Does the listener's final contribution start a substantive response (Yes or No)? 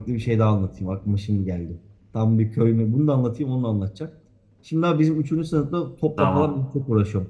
No